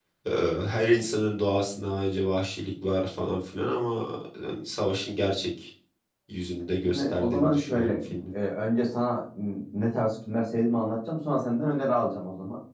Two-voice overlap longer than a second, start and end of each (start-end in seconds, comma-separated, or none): 6.8-8.2